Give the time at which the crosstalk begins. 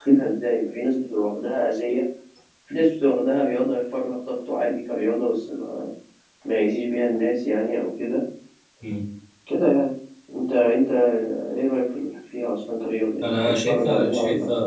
13.2 s

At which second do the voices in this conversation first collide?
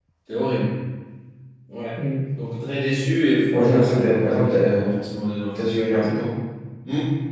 3.5 s

